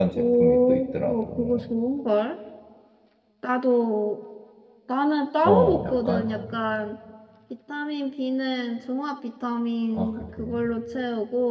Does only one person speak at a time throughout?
No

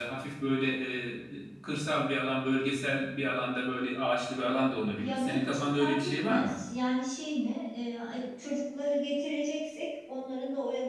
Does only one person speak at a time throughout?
No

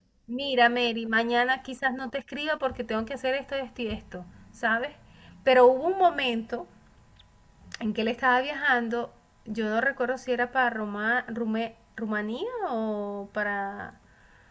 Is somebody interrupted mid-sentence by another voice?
No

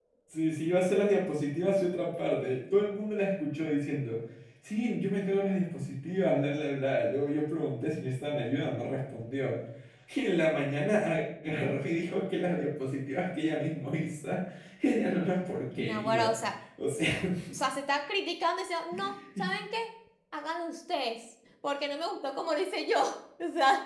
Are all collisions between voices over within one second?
Yes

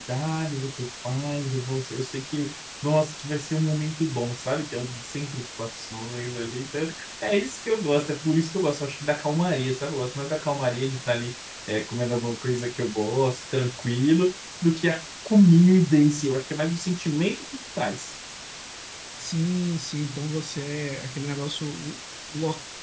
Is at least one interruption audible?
No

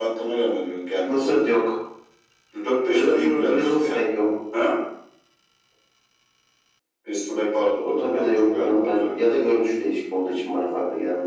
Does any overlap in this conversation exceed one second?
Yes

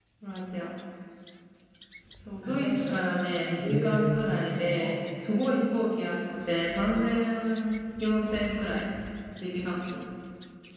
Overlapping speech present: Yes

